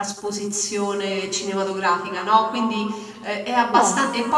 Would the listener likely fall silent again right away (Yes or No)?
Yes